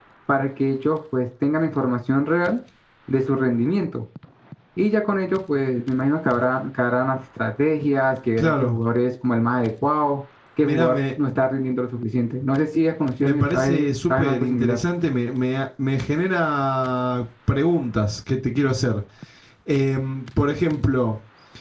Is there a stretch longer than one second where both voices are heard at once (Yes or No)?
Yes